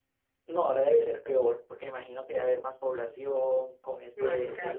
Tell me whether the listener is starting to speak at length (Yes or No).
No